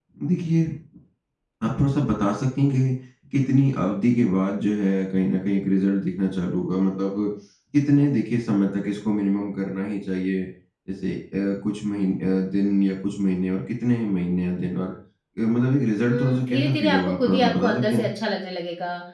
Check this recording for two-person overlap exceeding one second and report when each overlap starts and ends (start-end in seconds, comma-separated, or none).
16.0-18.1